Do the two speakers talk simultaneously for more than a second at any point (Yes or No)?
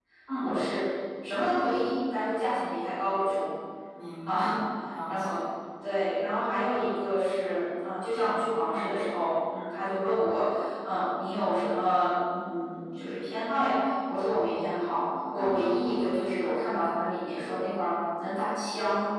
No